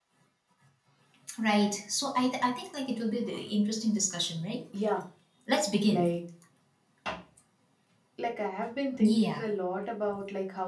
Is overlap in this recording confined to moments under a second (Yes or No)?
Yes